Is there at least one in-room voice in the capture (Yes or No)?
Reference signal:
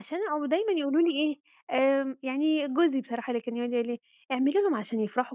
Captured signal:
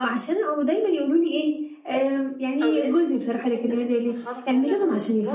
Yes